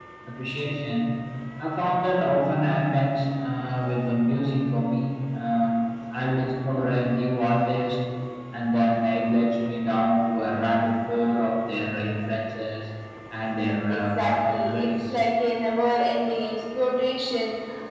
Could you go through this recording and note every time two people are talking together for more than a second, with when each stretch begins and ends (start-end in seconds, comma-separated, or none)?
13.9-15.1